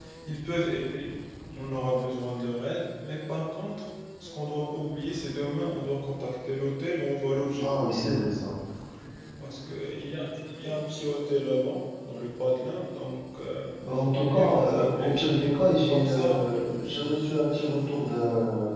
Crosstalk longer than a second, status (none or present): present